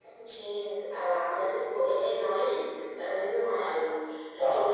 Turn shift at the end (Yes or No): No